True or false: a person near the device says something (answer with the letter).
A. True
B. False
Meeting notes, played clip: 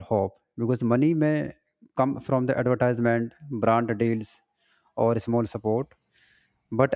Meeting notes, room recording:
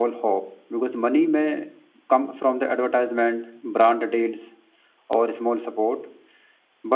B